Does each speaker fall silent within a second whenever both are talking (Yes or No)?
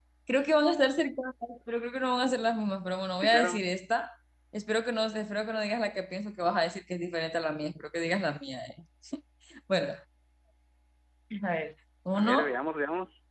Yes